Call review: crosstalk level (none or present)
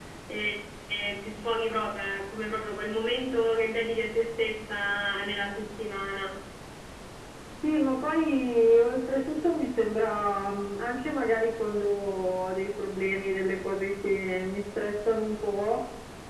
none